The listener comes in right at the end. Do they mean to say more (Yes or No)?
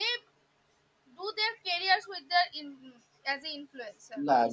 Yes